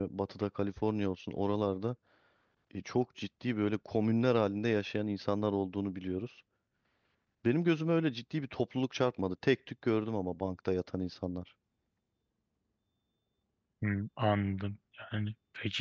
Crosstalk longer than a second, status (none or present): none